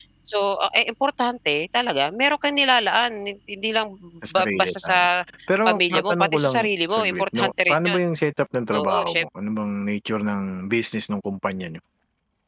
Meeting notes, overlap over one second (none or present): present